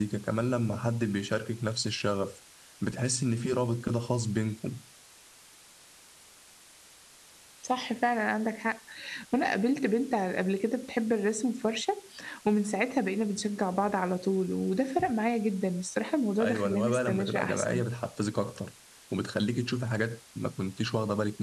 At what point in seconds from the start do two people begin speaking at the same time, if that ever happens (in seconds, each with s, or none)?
16.4 s